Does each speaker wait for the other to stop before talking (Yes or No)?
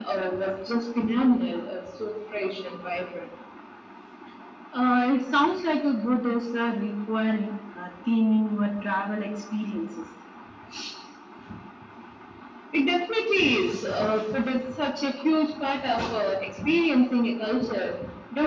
Yes